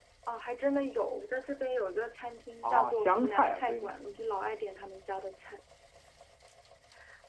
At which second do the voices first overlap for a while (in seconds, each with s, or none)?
2.6 s